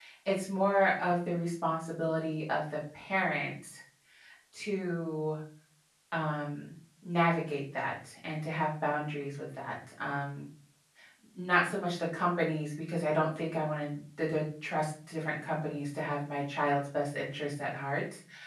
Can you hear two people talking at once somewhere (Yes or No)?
No